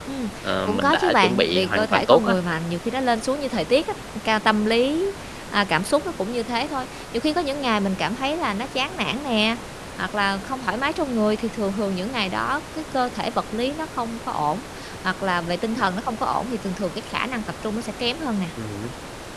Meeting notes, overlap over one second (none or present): present